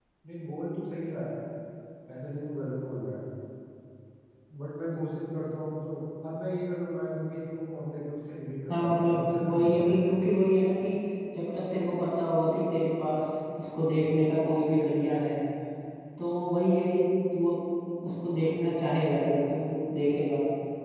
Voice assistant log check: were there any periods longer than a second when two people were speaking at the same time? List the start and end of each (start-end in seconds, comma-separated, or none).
8.7-10.1